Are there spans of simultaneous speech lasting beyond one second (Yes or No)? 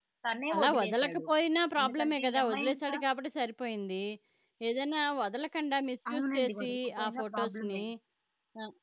Yes